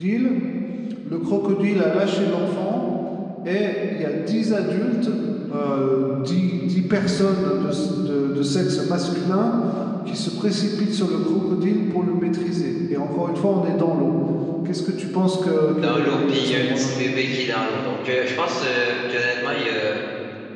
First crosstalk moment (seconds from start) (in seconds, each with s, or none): 15.7 s